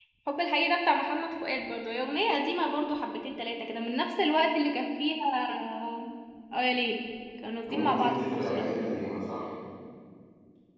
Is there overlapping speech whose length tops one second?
Yes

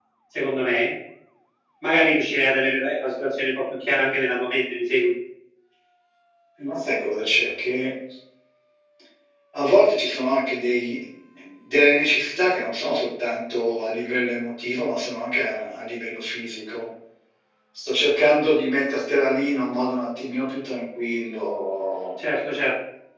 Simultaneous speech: No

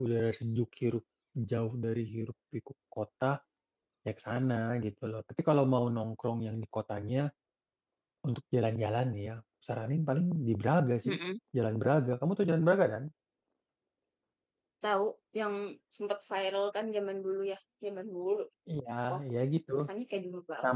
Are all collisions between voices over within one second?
Yes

